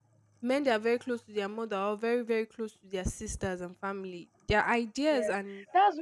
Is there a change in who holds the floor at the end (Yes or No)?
Yes